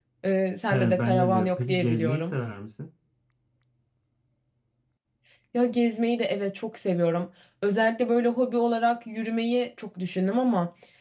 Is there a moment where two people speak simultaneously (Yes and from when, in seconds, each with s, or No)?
Yes, from 0.7 s